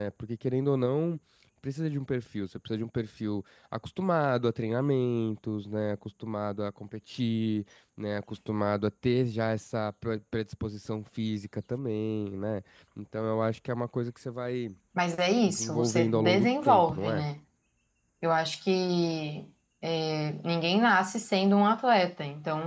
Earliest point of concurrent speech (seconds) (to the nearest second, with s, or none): 15 s